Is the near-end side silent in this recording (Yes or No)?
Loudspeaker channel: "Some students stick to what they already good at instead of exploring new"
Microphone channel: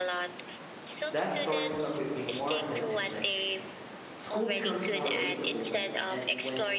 No